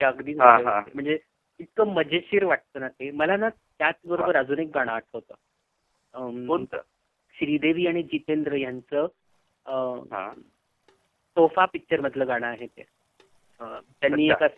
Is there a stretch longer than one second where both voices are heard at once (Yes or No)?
No